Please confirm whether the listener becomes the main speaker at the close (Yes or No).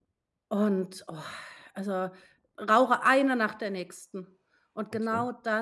No